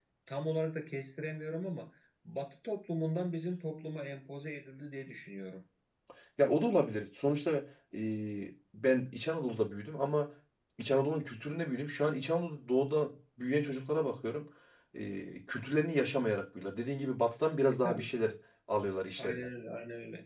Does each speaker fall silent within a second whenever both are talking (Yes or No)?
Yes